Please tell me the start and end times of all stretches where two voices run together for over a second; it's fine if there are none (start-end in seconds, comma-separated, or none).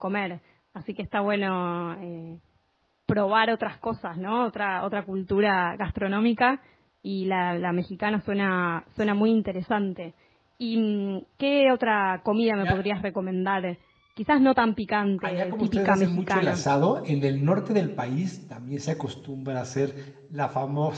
15.2-16.6